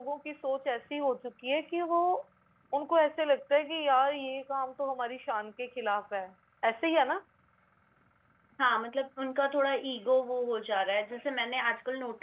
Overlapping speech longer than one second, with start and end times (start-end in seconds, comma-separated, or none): none